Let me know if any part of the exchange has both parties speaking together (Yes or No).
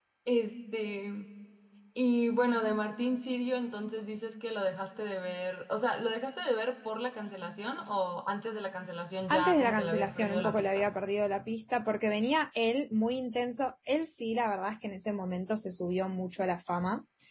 Yes